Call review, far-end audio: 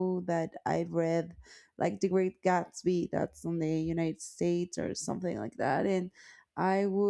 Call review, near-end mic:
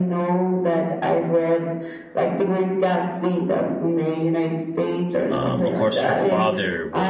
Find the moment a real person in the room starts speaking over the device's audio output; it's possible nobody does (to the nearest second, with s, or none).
5 s